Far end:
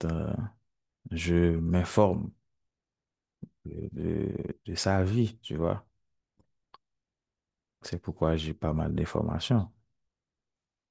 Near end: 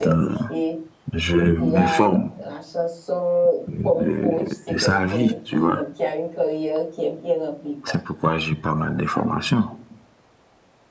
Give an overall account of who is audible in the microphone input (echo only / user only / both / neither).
both